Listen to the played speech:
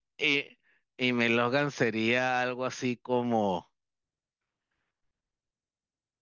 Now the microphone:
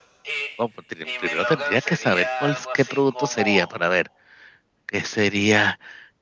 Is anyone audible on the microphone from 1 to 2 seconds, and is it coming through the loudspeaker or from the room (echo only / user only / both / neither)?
both